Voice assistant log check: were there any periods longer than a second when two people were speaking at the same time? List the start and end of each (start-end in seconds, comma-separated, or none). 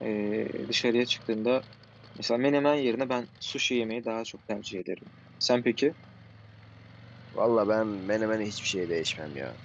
none